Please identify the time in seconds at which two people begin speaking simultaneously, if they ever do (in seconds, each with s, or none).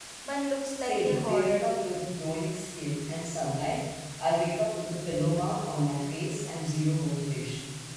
0.7 s